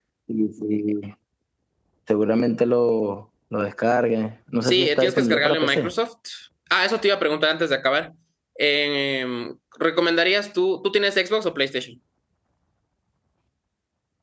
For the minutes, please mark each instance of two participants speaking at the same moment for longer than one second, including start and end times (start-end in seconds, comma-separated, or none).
4.6-5.9